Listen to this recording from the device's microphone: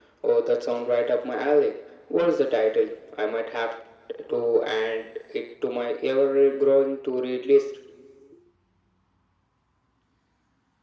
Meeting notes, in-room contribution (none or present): none